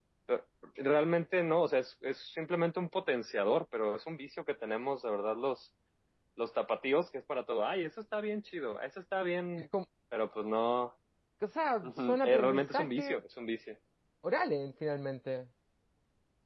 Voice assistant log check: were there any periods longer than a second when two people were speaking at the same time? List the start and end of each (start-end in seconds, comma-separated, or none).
11.8-13.2